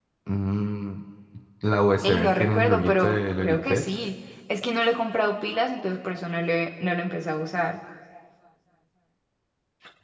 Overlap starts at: 2.0 s

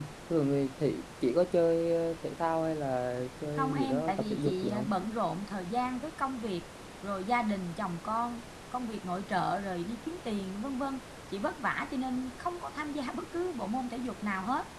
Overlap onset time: 3.5 s

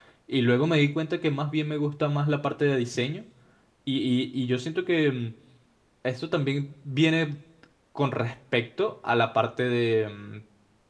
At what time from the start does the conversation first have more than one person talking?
none

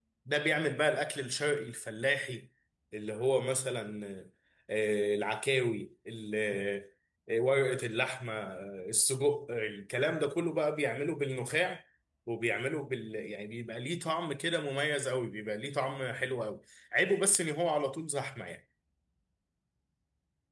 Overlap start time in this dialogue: none

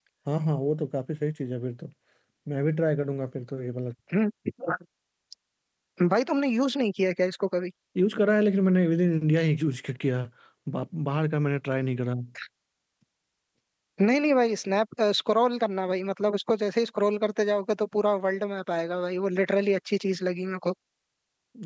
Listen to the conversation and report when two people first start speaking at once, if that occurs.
none

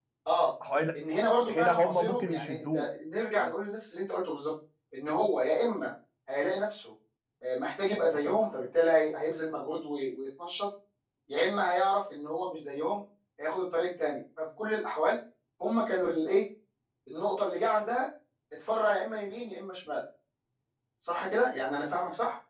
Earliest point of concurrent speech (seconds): 1.5 s

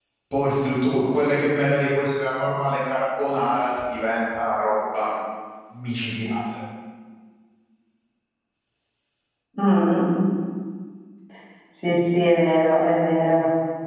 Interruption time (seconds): none

